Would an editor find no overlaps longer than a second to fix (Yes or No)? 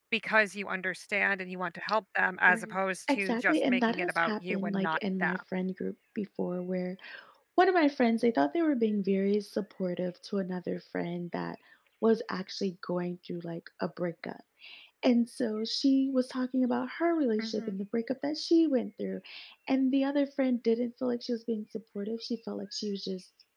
No